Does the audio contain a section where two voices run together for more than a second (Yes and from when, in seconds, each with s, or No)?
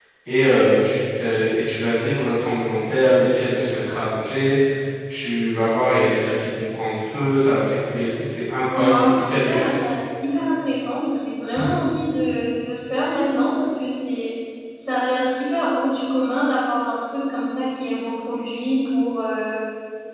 Yes, from 8.7 s